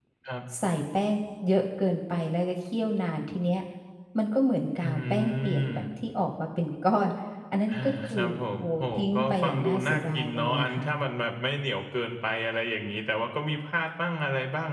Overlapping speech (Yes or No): Yes